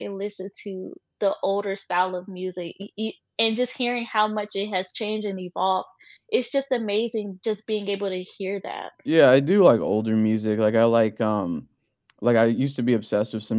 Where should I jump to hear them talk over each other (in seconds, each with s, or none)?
none